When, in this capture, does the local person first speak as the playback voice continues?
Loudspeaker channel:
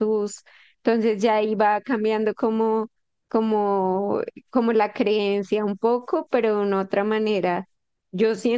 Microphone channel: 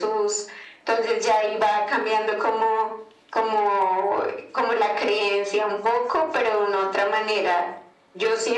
none

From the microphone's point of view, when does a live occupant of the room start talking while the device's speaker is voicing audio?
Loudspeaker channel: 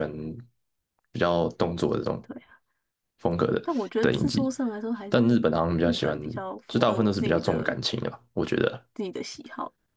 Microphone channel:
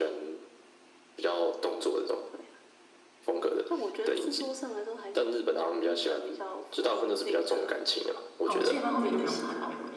8.4 s

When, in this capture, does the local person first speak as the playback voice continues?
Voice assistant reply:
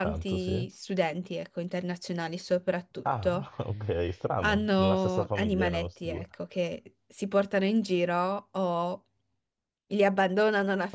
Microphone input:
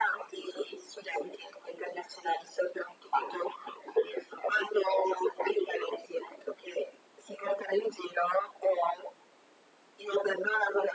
none

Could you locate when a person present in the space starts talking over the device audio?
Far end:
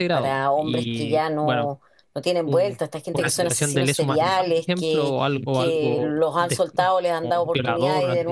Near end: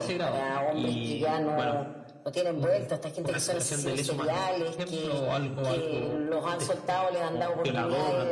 none

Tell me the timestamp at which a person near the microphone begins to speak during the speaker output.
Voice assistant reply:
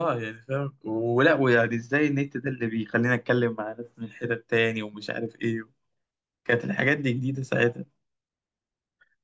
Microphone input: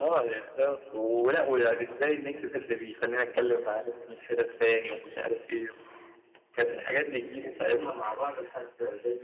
7.4 s

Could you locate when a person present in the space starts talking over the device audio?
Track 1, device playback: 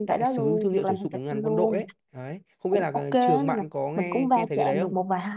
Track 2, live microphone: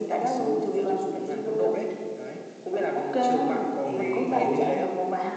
3.8 s

